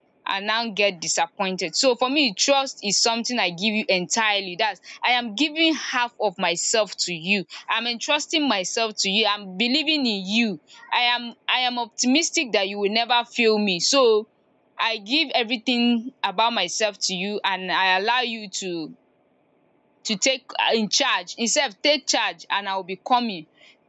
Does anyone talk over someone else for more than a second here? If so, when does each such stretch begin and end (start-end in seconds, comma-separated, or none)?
none